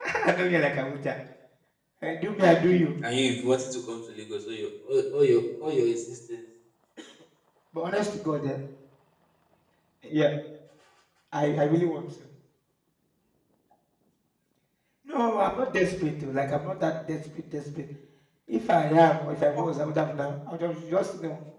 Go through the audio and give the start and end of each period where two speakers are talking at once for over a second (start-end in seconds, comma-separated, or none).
none